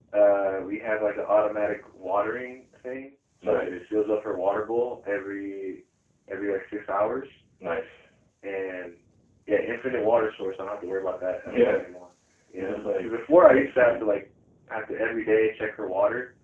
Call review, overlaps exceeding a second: present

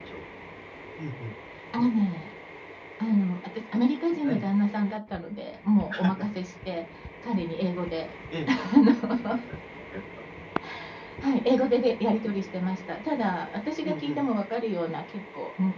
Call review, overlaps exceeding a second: none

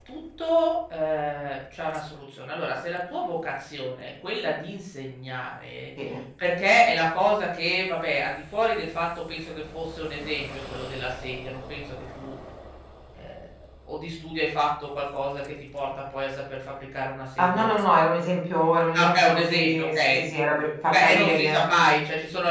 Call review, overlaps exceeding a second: present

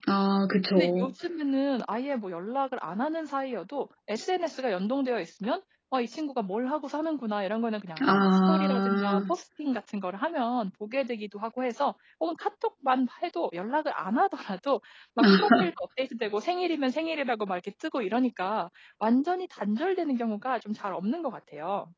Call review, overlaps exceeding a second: present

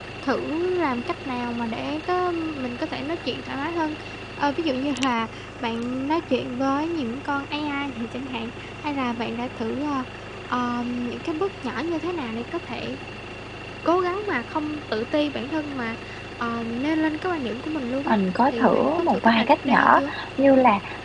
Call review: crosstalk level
present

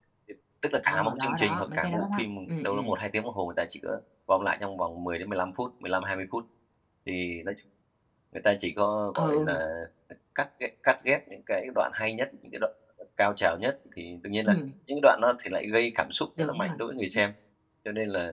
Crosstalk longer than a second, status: present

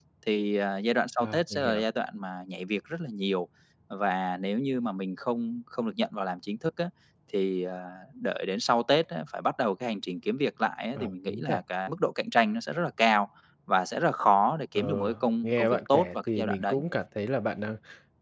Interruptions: present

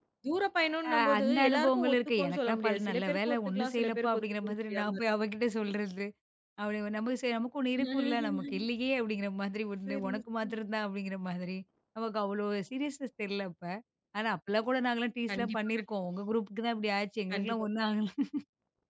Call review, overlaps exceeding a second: present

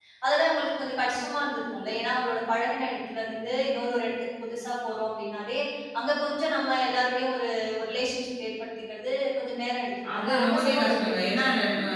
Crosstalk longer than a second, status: present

